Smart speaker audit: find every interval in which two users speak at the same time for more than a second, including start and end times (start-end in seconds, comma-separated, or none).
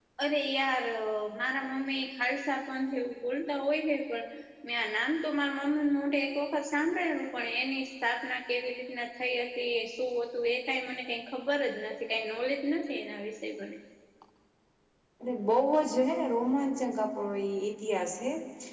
none